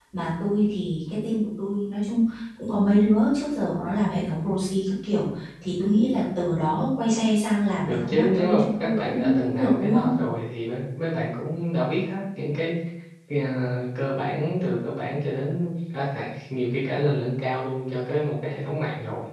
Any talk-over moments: Yes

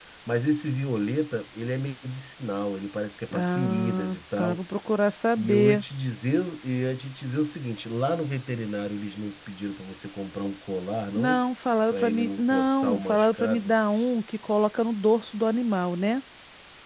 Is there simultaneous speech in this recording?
Yes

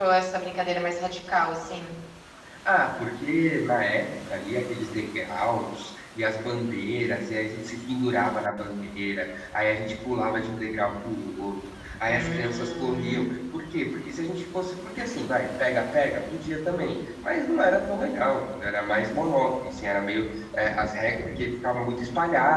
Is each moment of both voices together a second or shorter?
No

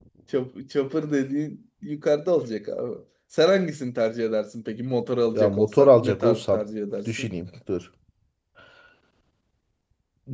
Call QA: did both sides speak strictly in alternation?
No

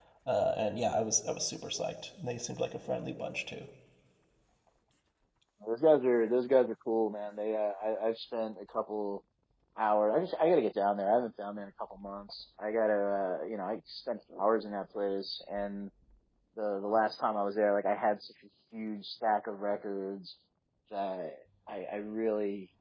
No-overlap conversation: Yes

